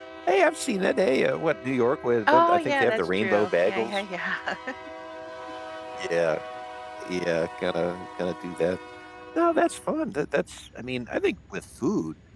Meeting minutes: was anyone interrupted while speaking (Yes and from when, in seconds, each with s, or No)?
Yes, from 2.3 s